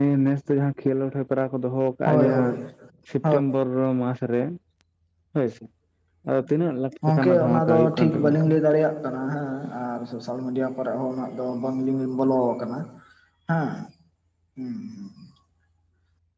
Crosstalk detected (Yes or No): Yes